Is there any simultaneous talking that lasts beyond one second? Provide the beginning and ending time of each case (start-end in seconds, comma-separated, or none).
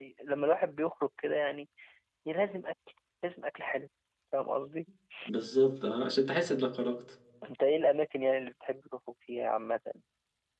none